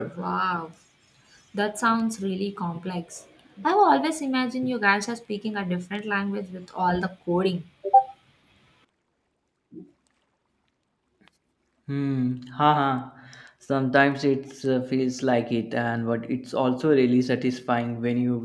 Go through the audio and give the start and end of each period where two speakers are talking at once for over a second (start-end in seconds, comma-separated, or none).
none